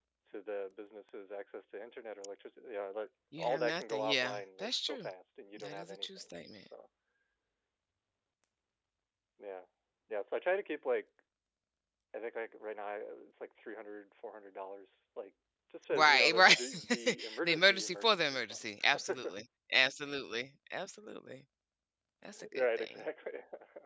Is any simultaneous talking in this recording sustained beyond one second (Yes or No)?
Yes